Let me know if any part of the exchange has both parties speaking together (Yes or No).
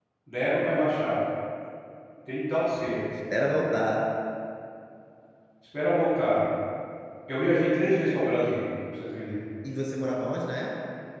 No